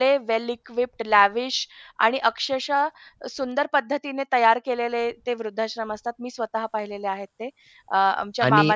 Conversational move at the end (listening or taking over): taking over